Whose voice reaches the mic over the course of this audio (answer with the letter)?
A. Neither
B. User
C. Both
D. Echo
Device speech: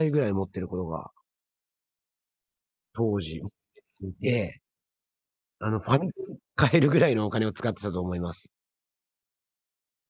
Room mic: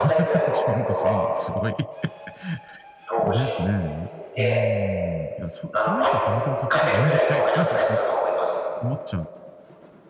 C